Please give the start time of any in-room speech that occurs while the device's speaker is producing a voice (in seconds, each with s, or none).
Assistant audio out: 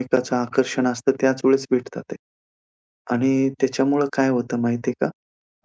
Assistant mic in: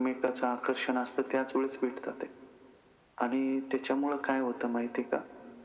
none